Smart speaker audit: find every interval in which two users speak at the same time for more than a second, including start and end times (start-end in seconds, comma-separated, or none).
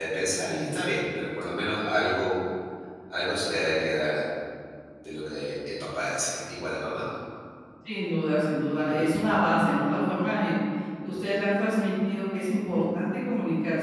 none